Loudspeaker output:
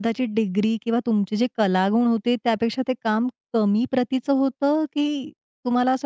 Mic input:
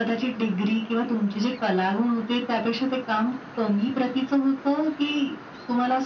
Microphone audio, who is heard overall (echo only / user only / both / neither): echo only